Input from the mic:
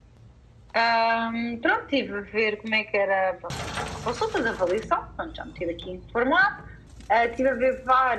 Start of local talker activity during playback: none

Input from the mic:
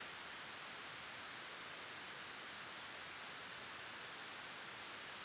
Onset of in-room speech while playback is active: none

